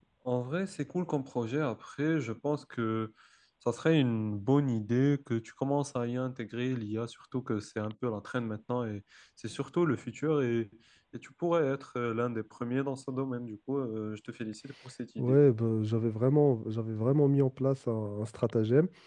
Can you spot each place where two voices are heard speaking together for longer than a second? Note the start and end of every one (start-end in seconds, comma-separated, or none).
none